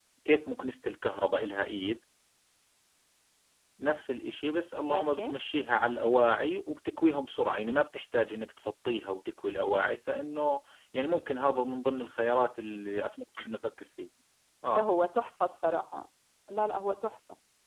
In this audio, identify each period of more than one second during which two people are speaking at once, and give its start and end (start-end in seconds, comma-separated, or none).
none